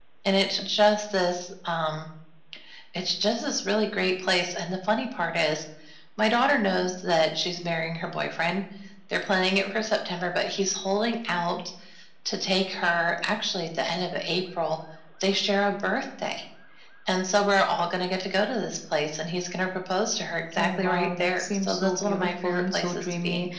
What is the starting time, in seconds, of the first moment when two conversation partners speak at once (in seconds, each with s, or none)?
20.5 s